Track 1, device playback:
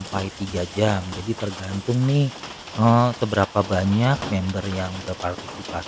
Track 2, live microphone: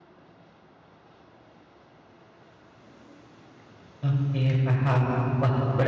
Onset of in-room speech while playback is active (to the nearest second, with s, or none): 4 s